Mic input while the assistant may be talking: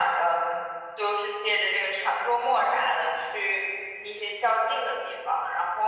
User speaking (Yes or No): No